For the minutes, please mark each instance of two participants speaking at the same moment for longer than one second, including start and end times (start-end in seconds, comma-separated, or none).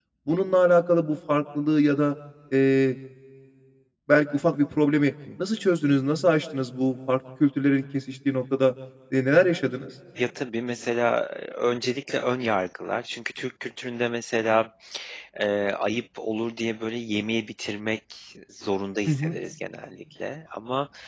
none